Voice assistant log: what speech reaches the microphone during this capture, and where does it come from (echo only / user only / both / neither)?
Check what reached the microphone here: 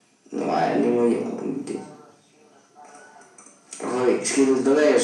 echo only